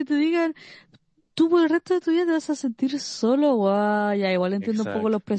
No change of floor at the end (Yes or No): Yes